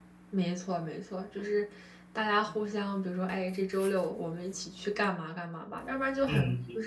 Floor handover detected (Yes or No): Yes